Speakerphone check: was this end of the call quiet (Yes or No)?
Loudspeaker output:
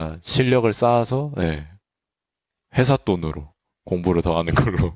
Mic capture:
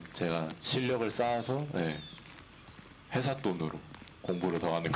Yes